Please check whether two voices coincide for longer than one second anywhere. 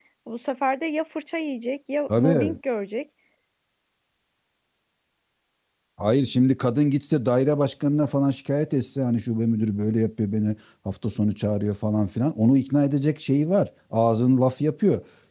No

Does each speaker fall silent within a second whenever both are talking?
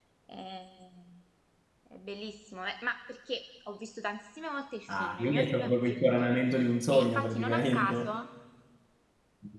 No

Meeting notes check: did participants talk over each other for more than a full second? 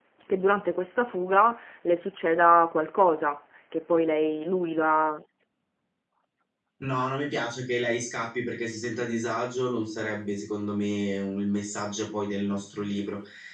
No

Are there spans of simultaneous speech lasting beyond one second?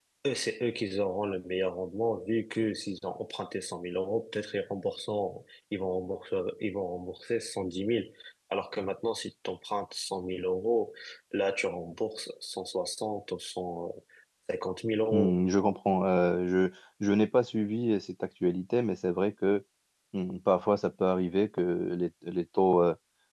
No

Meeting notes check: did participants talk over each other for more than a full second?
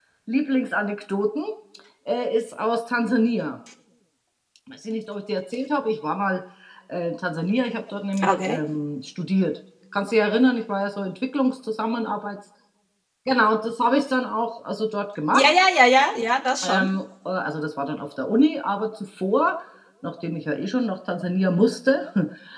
No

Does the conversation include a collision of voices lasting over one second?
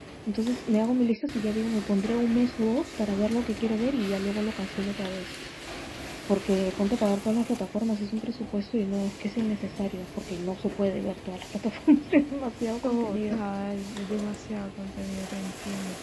No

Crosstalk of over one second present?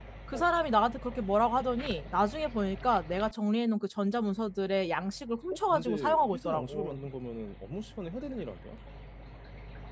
Yes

